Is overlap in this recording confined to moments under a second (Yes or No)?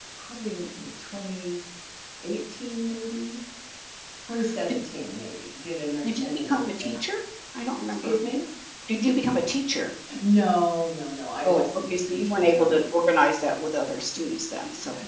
No